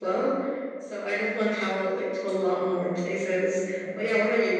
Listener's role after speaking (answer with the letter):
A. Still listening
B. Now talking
A